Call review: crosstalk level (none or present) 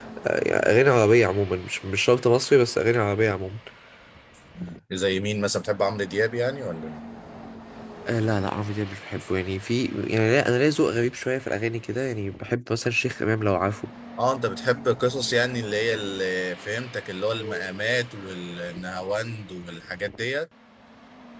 none